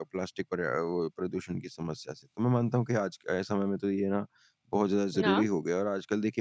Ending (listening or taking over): listening